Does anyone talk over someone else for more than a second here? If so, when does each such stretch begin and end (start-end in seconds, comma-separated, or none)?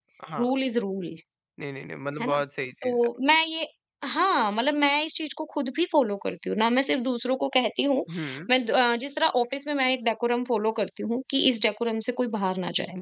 none